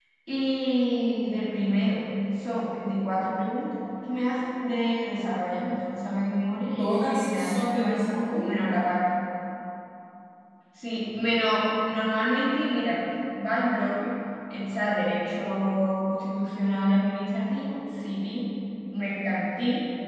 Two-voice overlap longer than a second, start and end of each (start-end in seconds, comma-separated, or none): 6.8-8.5